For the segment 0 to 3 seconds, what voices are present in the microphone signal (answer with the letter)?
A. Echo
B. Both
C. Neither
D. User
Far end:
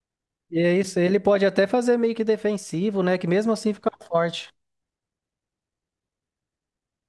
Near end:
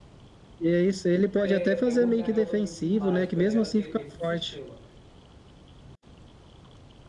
B